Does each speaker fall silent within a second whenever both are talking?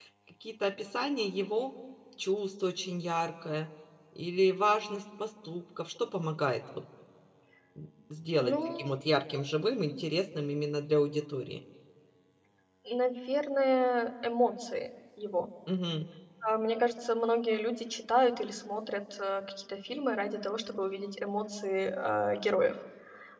Yes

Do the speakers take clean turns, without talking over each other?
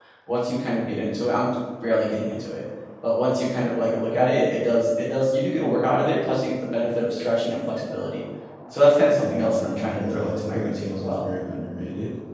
No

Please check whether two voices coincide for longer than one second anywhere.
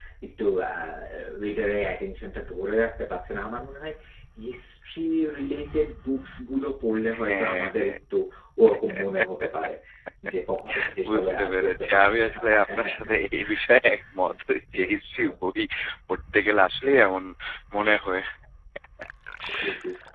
Yes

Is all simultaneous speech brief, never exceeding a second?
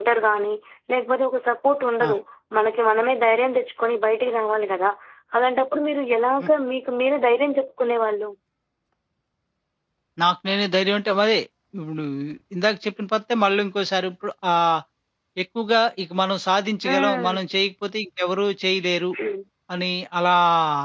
Yes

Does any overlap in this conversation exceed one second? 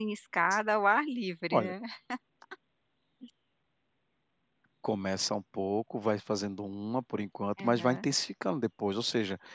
No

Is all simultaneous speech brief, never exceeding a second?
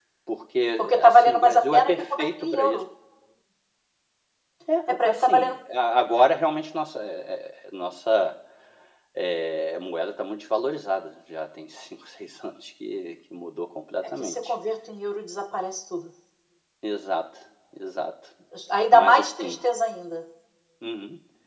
No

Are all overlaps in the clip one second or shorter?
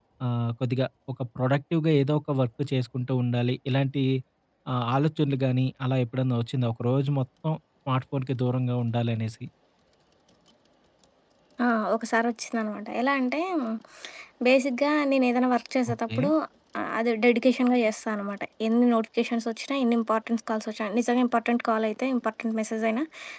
Yes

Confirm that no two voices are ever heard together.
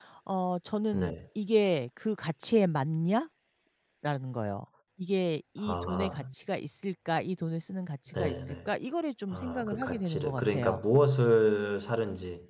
No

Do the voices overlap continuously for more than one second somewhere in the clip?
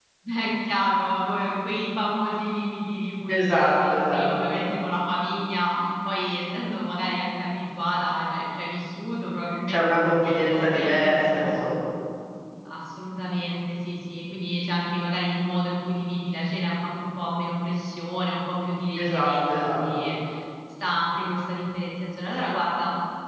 Yes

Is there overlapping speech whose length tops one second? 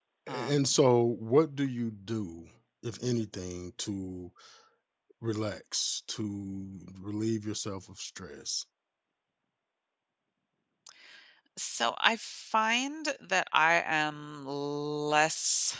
No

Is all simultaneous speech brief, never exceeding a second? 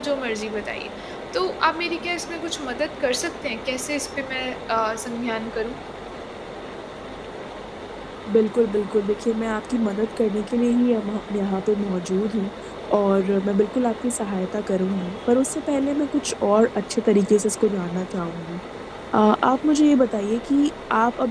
Yes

